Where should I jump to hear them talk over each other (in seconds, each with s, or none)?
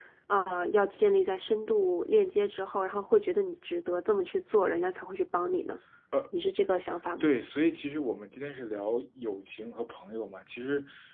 none